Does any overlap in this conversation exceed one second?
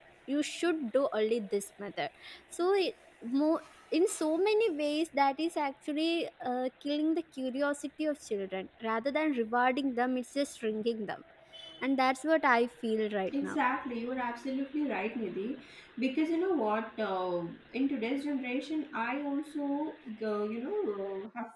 No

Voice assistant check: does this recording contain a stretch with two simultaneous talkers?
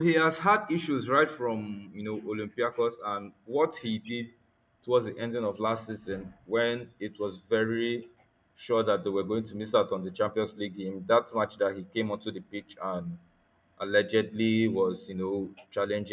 No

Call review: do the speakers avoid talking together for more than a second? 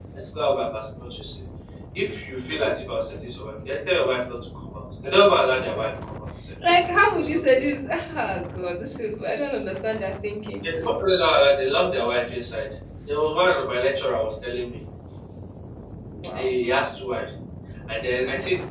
Yes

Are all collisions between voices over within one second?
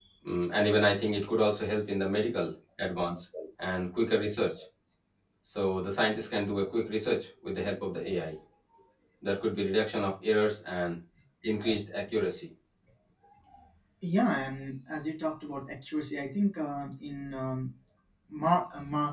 Yes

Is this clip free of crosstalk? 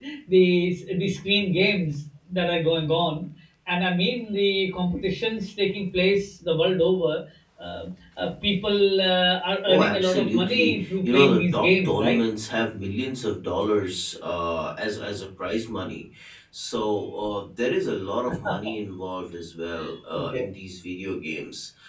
No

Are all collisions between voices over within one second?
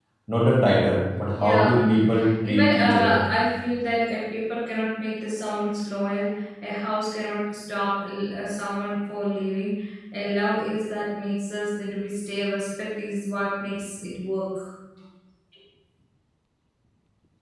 No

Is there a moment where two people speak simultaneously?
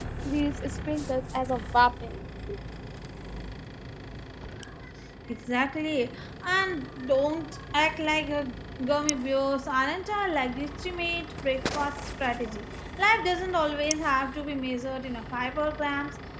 No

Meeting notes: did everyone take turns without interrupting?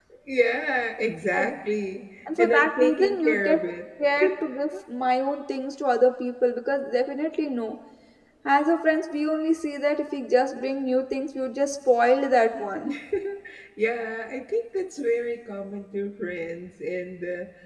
No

